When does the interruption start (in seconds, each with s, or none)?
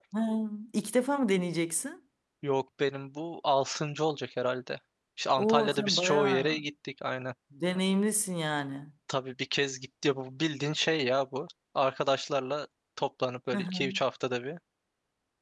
5.4 s